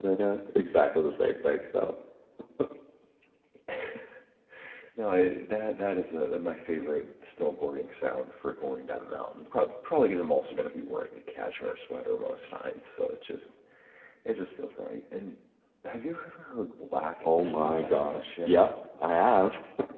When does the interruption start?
17.2 s

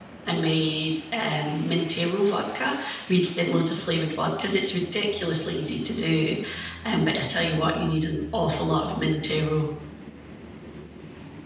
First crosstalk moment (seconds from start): none

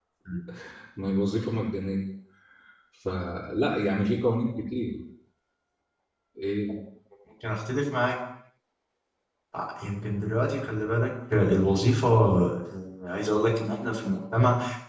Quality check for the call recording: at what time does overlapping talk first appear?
none

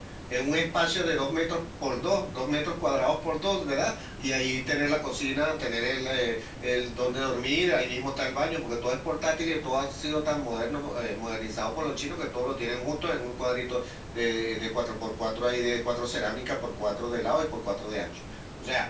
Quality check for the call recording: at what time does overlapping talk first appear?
none

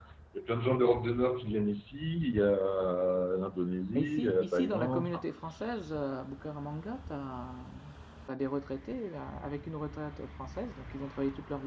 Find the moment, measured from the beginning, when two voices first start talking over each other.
4.0 s

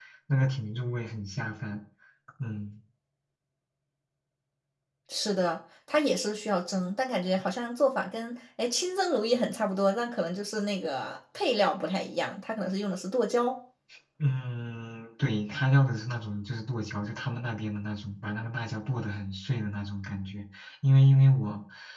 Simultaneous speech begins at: none

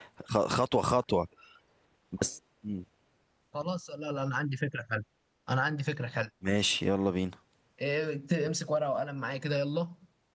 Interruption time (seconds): none

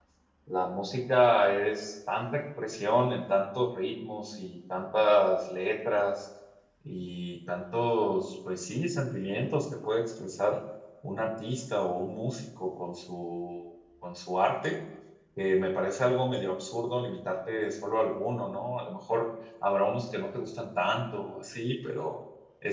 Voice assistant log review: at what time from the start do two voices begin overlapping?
none

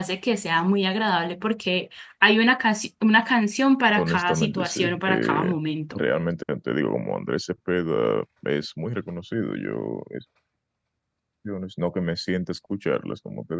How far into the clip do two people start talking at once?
4.0 s

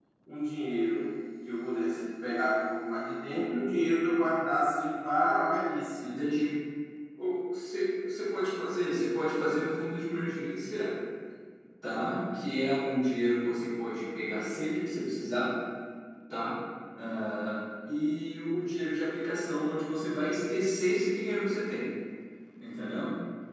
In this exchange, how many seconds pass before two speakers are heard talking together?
none

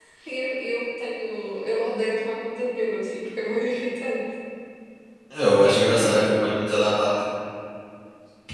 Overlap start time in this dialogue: none

